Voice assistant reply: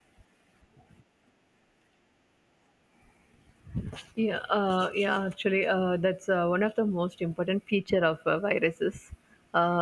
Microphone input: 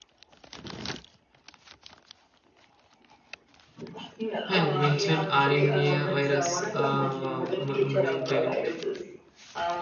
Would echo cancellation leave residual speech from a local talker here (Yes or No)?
Yes